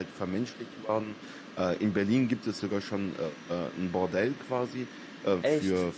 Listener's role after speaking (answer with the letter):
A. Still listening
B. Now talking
A